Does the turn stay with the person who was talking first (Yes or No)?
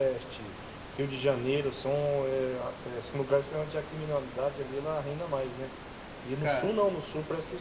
Yes